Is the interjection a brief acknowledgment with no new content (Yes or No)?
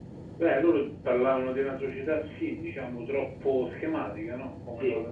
Yes